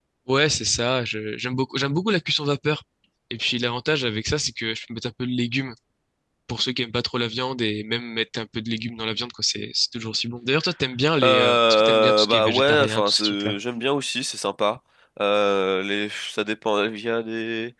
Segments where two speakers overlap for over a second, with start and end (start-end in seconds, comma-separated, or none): 11.2-13.6